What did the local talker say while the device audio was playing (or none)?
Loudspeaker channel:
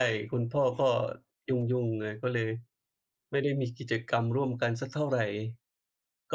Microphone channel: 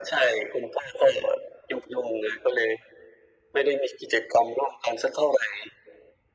none